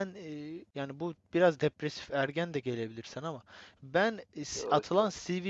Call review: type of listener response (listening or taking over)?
listening